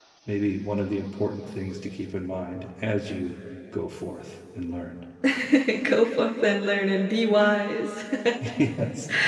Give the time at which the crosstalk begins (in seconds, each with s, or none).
none